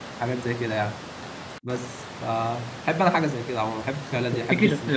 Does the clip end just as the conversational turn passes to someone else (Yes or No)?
Yes